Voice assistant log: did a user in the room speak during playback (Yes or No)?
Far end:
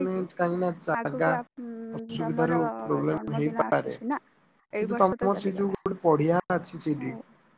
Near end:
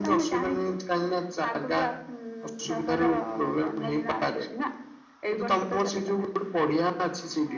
No